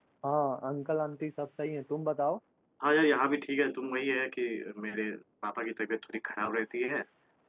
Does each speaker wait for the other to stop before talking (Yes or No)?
Yes